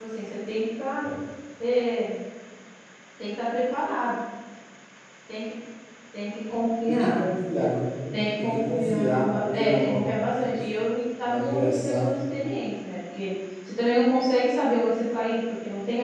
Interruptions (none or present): present